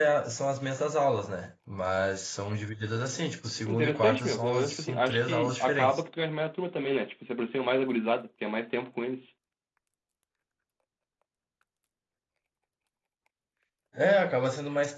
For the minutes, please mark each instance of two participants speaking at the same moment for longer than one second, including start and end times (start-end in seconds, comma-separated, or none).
3.7-6.0